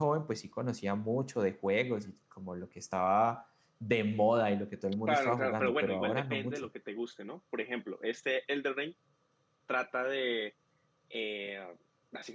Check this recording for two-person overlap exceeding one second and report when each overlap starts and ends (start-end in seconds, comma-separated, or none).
5.1-6.7